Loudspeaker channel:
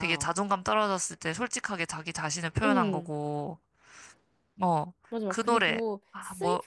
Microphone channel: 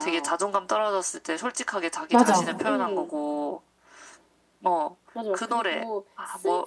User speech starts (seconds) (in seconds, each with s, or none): 2.1 s